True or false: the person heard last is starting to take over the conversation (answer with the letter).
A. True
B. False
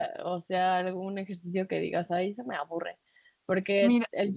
B